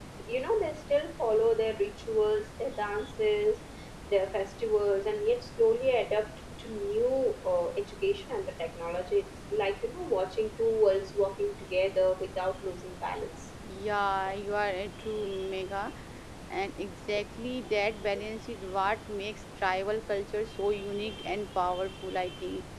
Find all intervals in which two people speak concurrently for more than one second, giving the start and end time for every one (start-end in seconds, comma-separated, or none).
none